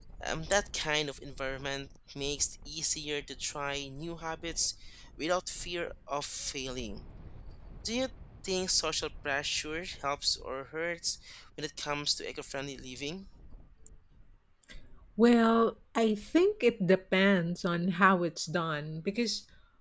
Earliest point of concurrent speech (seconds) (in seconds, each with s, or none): none